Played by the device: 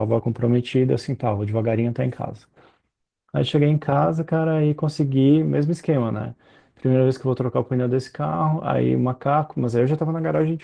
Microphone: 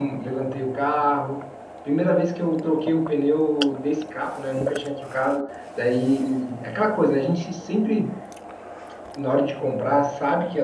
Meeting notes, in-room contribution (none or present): present